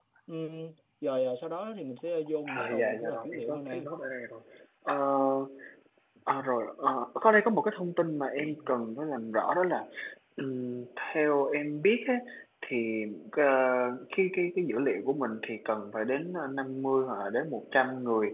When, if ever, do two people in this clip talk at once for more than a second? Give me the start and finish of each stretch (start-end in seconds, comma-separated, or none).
2.5-3.8